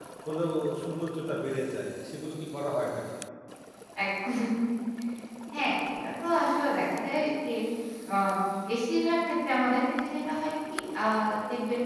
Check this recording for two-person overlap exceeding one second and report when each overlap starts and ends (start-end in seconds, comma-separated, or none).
none